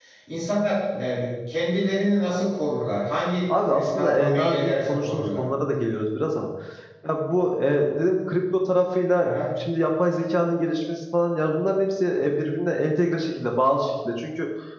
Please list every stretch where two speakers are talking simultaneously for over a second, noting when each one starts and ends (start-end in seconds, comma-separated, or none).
3.7-5.4